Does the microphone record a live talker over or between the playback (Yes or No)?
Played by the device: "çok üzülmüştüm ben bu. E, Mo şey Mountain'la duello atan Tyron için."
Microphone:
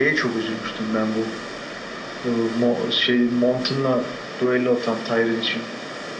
No